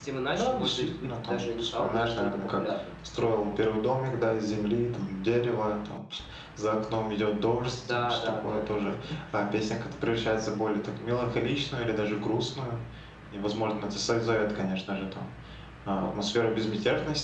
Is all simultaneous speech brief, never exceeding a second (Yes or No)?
No